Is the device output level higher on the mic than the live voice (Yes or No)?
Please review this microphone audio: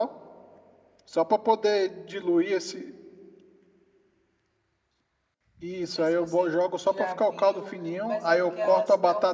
Yes